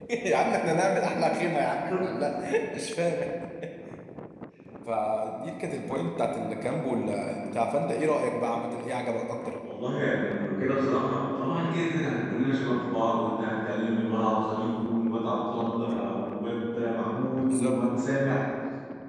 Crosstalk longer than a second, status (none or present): none